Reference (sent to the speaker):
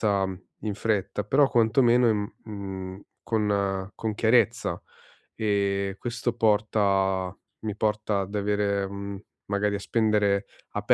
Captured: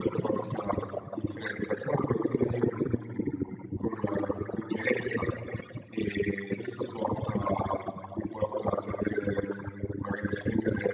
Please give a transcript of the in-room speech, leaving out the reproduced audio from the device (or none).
none